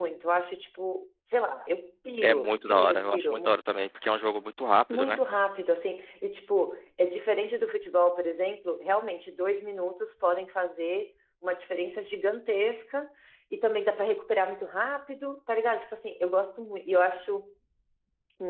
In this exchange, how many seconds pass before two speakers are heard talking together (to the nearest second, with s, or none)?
2 s